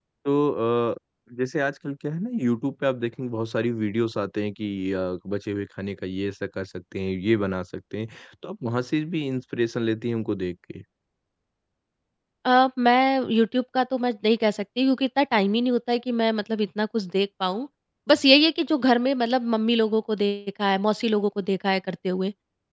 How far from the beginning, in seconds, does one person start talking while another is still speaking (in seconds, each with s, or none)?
none